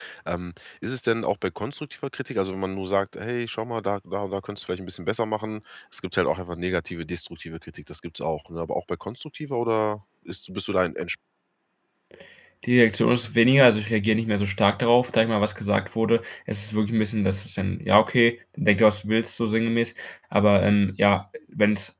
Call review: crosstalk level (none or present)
none